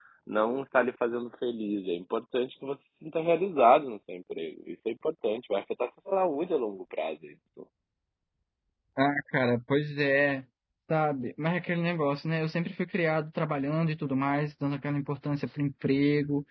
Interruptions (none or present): none